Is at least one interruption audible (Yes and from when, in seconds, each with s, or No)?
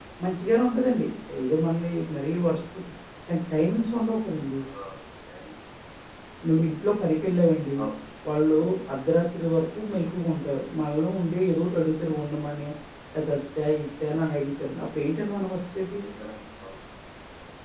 No